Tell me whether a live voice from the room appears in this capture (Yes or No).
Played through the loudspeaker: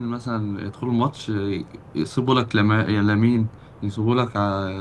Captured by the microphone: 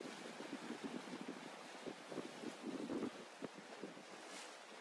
No